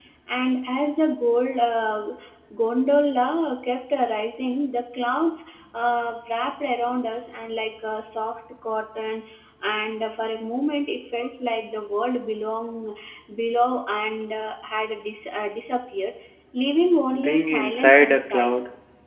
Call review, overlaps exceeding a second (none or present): present